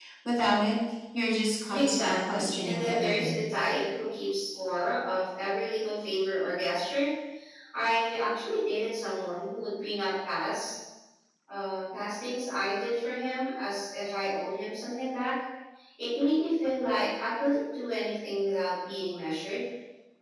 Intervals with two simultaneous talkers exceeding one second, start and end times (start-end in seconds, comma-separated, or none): 1.7-3.4